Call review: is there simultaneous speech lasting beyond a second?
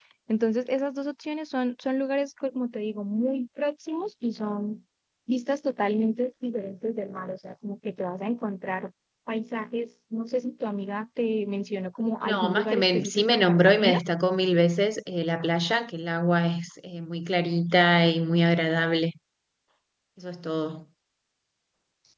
Yes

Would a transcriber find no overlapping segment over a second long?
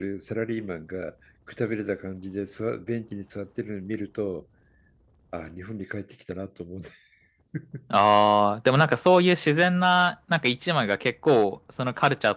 Yes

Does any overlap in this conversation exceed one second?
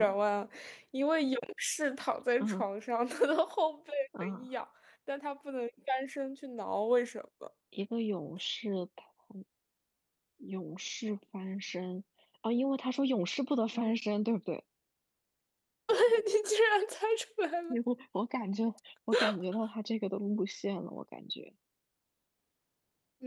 No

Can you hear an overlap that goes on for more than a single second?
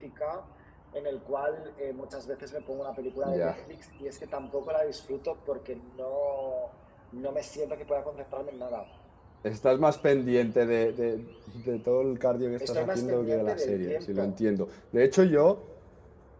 Yes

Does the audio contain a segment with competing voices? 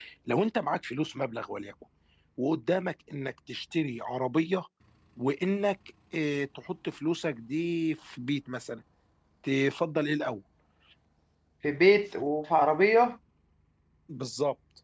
No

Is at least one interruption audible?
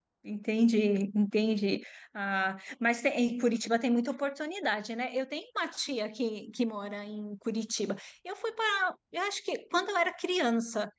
No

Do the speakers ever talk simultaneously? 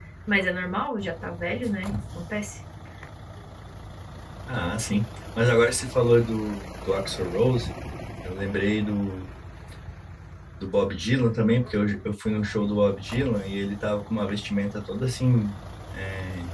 No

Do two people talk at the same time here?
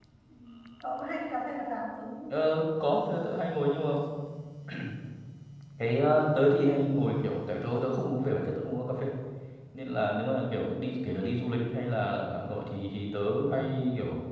No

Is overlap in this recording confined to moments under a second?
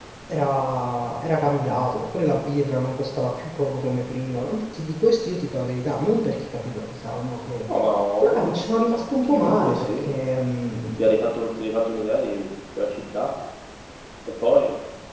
No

